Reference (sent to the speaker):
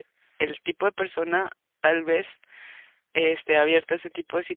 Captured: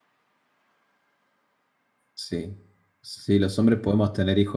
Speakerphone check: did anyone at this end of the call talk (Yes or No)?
Yes